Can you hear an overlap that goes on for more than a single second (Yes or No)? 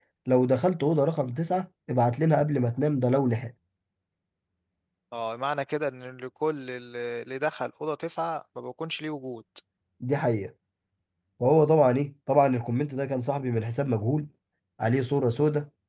No